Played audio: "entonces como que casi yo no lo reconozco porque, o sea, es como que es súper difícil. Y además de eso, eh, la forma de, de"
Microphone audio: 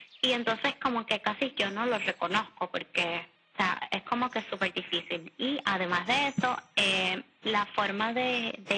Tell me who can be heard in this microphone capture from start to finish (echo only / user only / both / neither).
echo only